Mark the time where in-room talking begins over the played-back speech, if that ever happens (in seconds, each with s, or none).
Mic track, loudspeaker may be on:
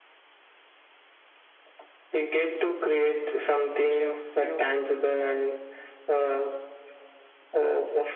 3.9 s